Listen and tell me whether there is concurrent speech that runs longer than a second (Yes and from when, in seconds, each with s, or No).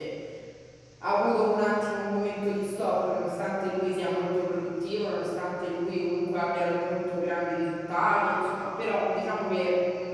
No